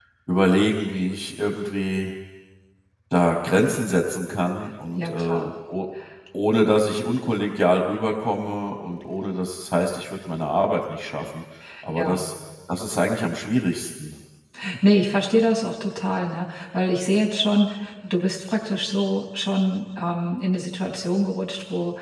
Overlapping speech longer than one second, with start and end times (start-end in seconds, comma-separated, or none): none